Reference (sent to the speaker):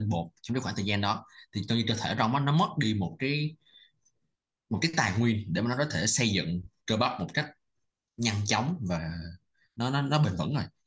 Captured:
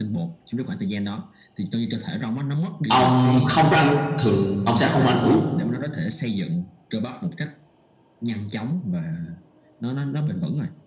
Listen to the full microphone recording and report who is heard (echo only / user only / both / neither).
both